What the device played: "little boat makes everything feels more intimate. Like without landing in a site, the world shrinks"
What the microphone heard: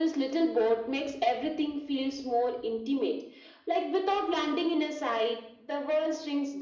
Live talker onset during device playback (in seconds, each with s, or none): none